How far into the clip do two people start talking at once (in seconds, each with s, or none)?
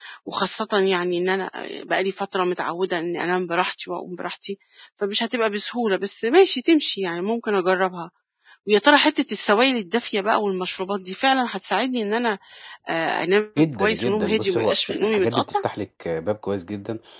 13.6 s